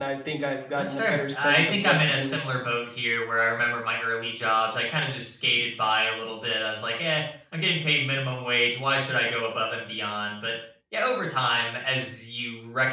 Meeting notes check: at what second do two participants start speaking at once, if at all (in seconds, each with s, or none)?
0.8 s